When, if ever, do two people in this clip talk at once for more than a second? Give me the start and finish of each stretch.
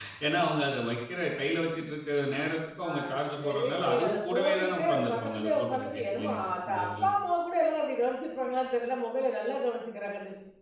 3.4-7.1

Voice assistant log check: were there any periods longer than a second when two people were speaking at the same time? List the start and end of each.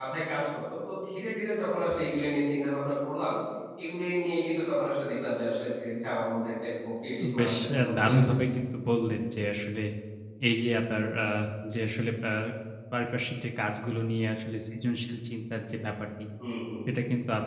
7.2-8.4

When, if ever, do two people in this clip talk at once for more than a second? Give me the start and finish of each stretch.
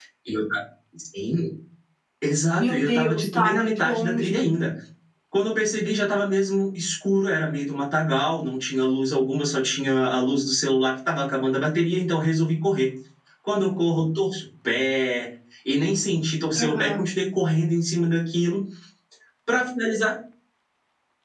2.5-4.3

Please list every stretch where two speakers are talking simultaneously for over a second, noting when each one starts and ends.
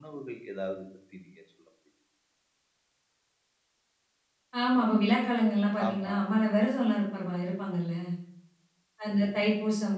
none

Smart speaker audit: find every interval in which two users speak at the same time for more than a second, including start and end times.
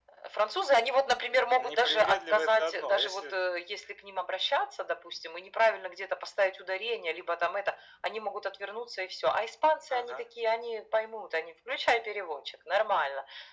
1.6-3.4

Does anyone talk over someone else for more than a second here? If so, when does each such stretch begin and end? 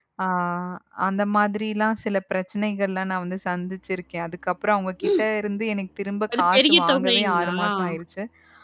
6.3-7.7

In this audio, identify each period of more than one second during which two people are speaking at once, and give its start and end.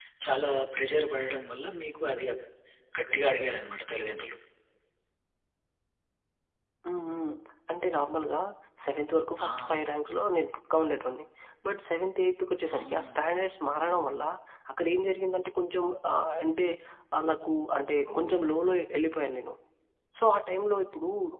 none

